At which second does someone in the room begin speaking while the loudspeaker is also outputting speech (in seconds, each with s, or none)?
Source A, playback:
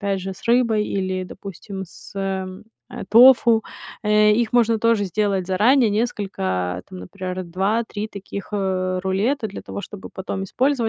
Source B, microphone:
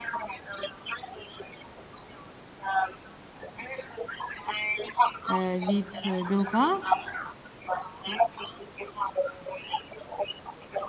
5.3 s